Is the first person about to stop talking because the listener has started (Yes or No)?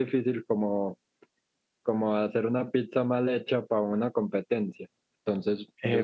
Yes